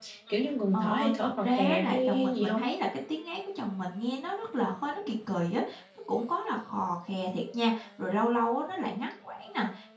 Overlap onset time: 1 s

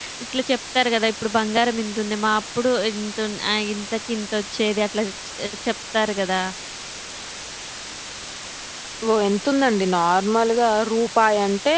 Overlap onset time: none

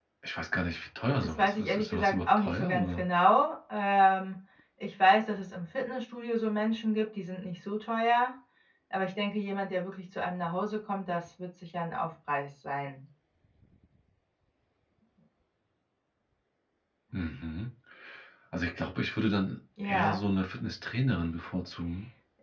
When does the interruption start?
1 s

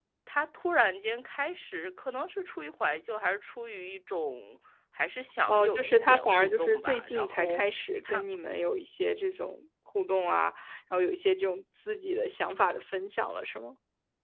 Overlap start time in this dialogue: 5 s

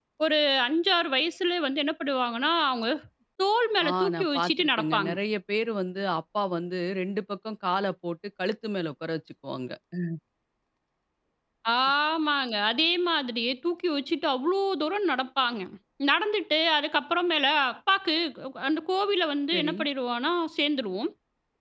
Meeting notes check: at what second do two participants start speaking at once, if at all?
4 s

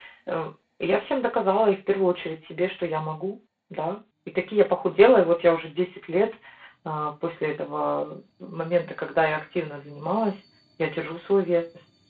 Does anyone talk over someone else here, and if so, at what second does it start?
none

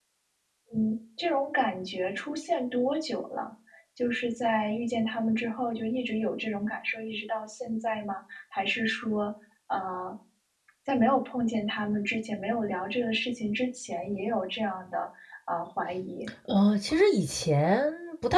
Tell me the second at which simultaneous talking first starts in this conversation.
none

